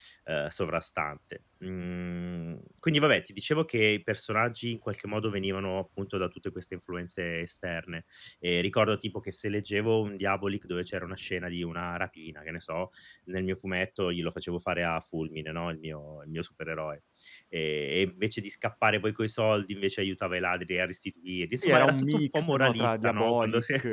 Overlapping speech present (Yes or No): Yes